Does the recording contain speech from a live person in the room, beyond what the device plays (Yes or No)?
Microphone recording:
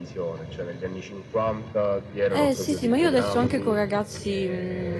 Yes